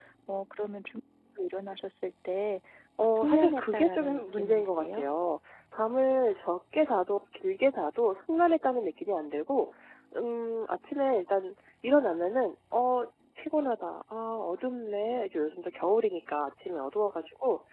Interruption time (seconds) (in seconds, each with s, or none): 3.0 s